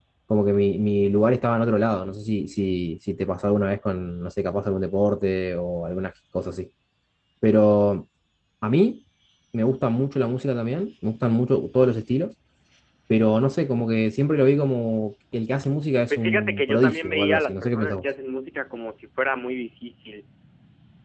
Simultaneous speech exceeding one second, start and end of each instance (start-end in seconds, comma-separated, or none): 16.1-18.0